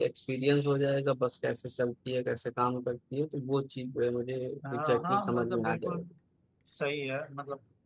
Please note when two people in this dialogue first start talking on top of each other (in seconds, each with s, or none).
4.7 s